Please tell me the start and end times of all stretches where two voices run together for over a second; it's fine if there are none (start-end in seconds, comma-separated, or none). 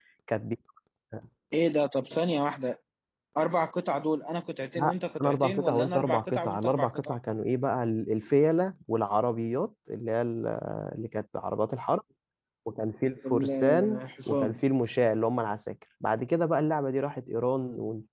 4.8-7.2, 13.2-14.6